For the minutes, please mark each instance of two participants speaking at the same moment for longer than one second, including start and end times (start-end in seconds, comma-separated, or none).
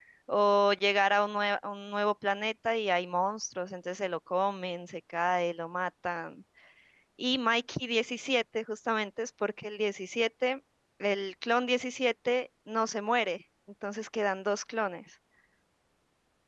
none